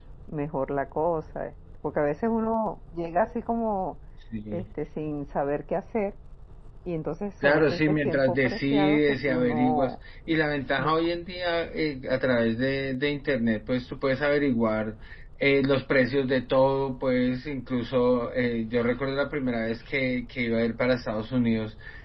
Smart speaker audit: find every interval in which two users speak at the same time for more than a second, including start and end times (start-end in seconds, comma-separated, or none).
7.4-9.9